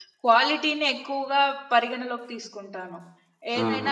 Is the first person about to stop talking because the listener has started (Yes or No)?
Yes